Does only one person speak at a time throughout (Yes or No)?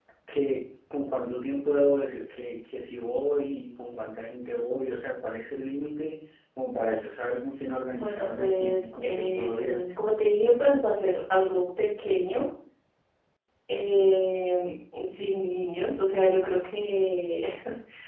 No